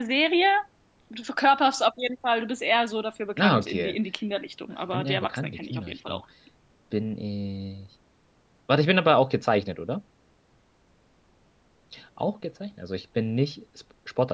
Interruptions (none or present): present